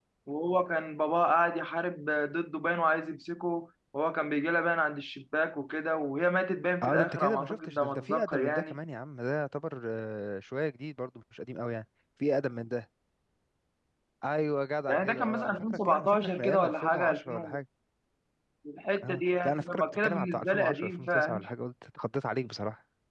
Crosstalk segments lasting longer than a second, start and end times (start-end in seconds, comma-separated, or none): 6.8-8.8, 14.9-17.6, 19.0-21.4